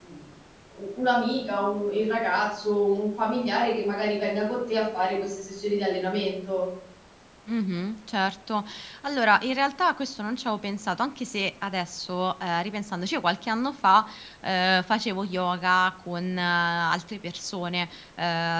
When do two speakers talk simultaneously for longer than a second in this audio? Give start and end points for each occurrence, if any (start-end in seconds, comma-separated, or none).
none